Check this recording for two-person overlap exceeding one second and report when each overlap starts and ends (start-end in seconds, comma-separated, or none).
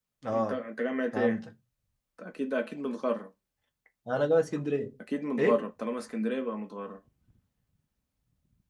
none